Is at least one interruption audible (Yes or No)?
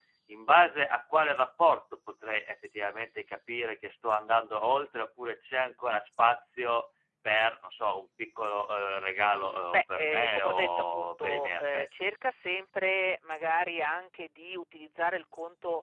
Yes